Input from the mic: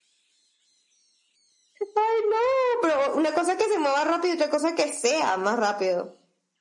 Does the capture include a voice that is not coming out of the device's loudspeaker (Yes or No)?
No